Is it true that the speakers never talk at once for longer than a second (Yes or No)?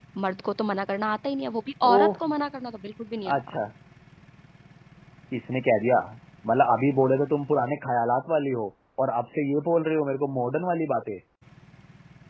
Yes